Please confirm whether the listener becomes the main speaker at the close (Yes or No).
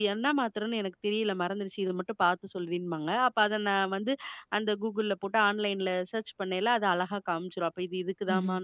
No